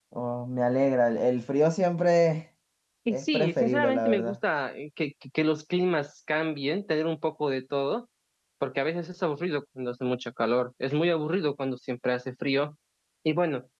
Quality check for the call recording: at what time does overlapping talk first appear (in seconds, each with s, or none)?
3.1 s